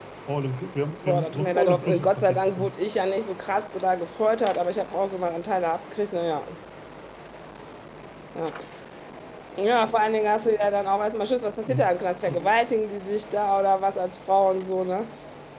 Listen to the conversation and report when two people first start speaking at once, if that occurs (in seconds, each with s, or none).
1.0 s